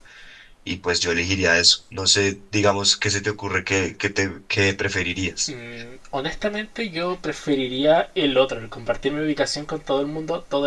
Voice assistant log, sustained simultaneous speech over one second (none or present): none